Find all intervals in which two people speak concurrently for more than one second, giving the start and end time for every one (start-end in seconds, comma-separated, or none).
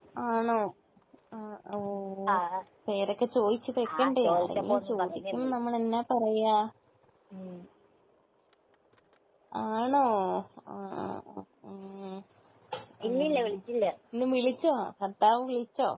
4.0-5.5